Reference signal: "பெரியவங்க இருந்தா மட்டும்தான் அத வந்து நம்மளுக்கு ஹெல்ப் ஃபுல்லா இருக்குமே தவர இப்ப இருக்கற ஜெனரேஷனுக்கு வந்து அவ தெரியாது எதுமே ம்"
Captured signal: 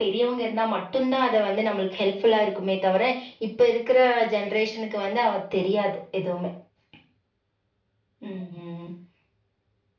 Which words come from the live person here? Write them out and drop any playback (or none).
none